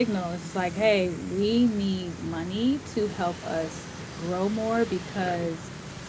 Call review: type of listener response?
listening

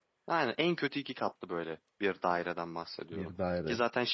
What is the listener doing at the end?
listening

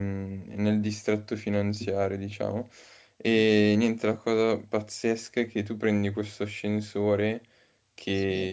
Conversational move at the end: listening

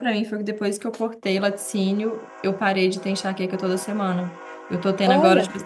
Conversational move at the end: listening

